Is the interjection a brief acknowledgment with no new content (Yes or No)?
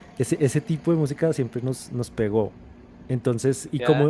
Yes